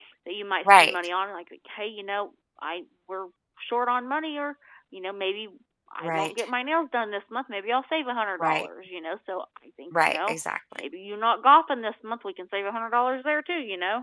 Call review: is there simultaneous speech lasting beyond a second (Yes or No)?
No